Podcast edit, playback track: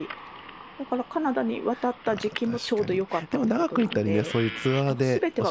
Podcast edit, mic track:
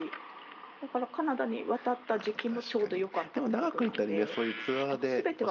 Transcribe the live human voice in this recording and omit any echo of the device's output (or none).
none